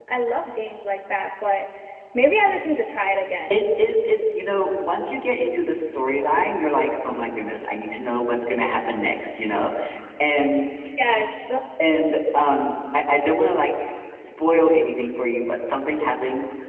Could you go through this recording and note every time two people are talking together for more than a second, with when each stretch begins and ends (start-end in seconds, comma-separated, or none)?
none